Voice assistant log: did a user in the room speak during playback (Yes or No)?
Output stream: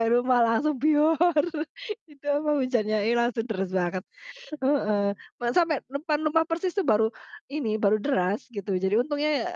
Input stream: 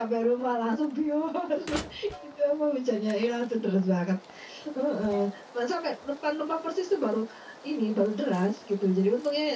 No